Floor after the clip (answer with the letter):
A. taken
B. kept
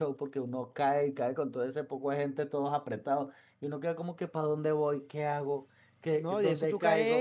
A